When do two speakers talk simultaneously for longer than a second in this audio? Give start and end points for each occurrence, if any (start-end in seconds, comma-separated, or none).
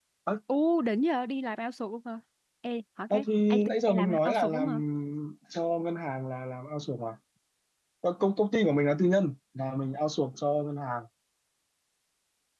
3.1-4.7